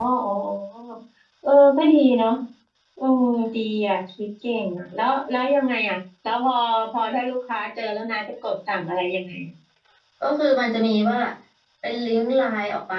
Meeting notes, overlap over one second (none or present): none